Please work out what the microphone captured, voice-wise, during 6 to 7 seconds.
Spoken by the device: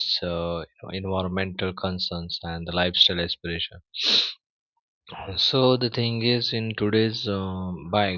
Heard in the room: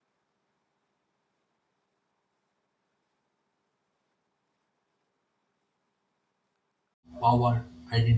neither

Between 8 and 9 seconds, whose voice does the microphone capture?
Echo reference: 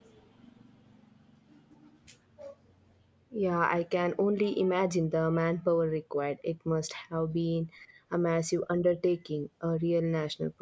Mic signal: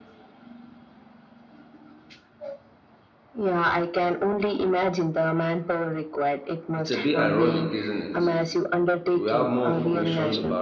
both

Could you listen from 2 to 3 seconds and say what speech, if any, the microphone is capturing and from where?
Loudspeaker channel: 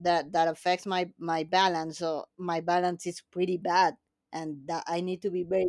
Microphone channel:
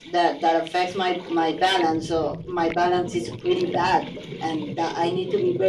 echo only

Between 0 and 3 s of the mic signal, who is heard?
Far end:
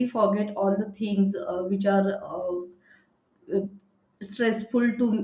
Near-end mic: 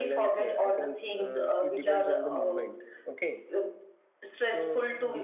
both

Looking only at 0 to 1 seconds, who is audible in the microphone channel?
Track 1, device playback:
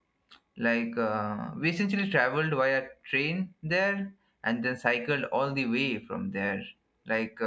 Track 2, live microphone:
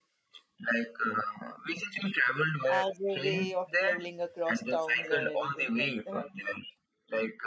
echo only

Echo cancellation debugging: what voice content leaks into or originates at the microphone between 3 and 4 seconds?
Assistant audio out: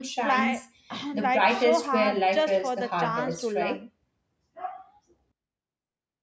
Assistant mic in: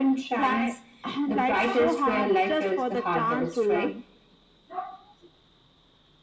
echo only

